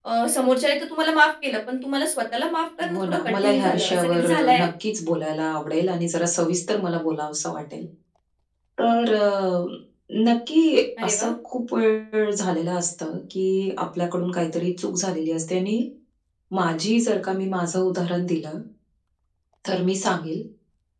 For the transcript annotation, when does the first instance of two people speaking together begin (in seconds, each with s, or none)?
2.9 s